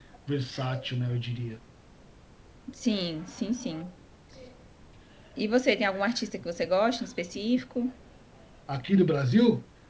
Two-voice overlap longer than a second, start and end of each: none

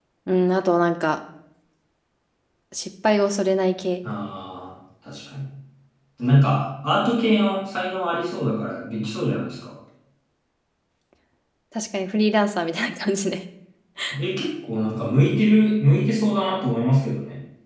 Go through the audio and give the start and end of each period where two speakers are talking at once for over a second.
none

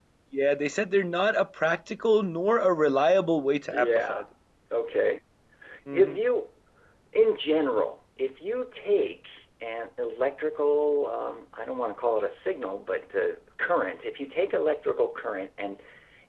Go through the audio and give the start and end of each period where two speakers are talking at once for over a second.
none

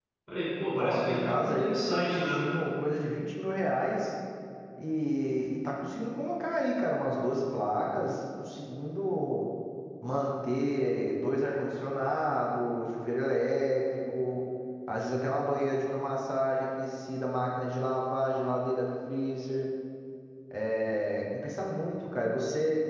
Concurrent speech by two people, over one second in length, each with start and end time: 0.8-2.5

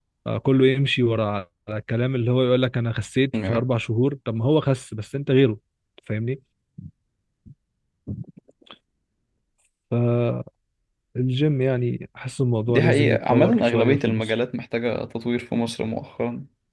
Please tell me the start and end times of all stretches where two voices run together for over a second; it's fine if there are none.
12.7-14.3

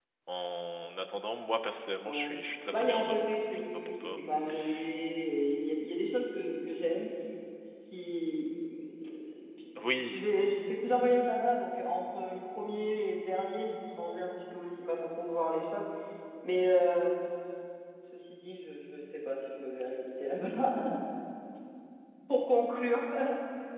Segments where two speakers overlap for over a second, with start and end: 2.7-4.2

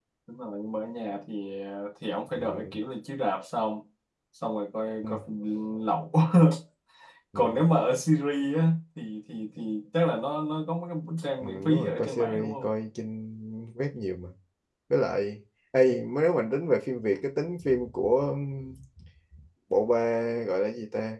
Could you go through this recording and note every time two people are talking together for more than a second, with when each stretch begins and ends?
11.4-12.7

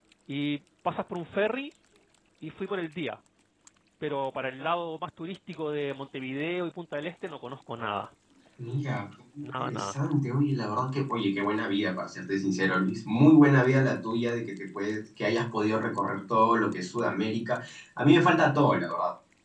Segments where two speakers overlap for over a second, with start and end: none

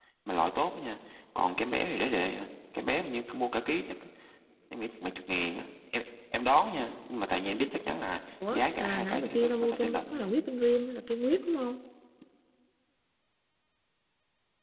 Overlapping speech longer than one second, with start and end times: 8.5-10.3

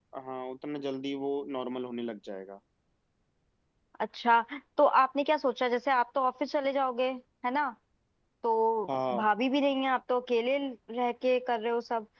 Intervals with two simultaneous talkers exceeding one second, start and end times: none

